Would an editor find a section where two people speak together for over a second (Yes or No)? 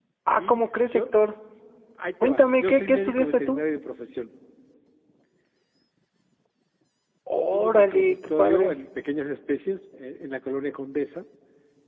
Yes